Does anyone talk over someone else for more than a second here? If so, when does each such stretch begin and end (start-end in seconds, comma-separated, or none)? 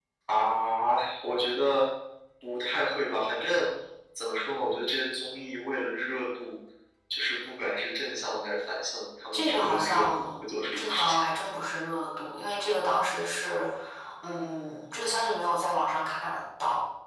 9.3-11.2